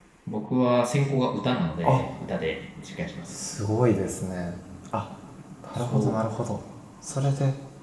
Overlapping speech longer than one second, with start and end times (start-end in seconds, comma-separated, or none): none